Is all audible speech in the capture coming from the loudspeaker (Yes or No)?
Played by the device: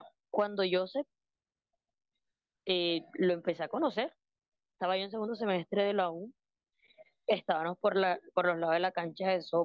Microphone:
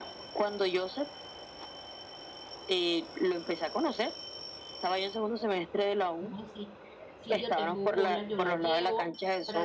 No